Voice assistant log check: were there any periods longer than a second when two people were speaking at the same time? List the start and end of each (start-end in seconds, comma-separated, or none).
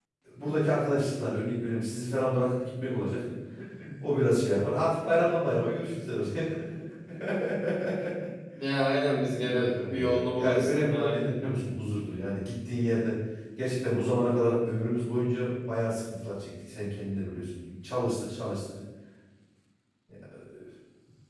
9.3-11.5